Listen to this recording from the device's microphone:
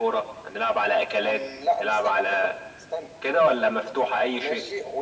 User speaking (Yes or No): Yes